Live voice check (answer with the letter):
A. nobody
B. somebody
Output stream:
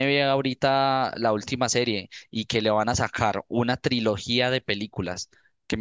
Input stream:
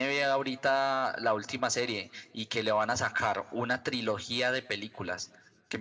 A